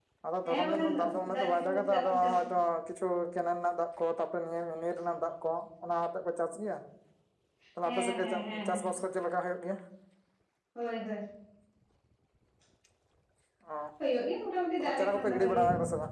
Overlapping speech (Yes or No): Yes